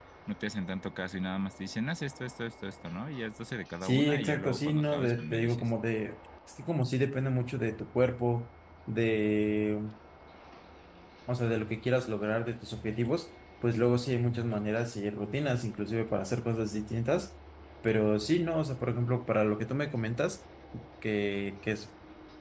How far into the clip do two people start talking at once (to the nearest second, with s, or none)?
4 s